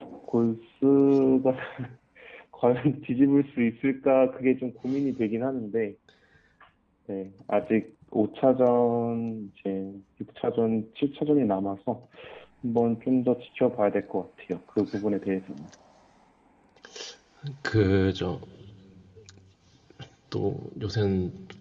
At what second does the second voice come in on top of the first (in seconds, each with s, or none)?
none